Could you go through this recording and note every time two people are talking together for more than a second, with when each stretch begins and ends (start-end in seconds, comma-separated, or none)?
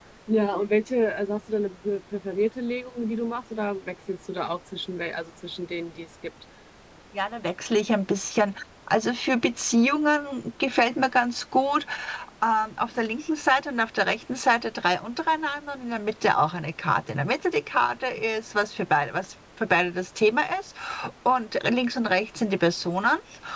none